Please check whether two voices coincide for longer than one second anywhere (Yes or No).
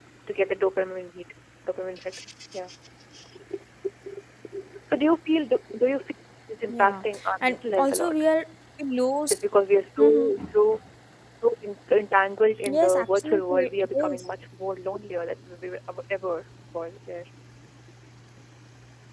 Yes